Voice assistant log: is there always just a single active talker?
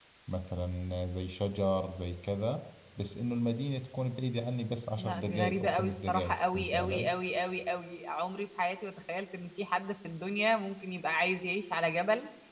No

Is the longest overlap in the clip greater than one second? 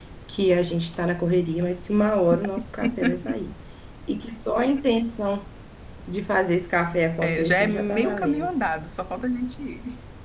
Yes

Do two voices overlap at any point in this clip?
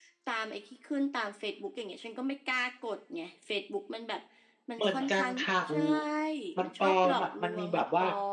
Yes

